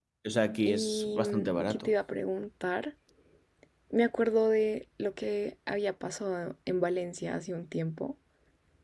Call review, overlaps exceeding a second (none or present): present